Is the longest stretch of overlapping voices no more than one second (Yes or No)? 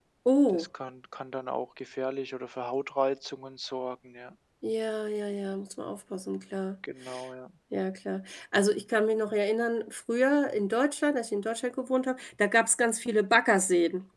Yes